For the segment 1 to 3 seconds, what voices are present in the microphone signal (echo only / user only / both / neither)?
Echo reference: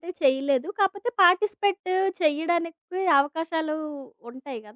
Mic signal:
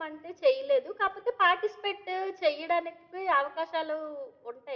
echo only